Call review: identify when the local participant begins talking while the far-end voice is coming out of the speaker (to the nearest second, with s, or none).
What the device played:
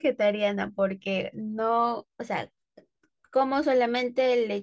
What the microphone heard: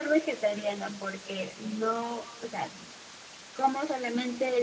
none